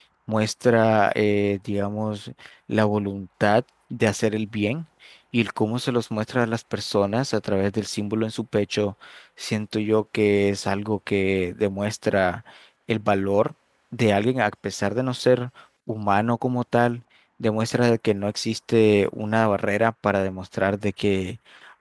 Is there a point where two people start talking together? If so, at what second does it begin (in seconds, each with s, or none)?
none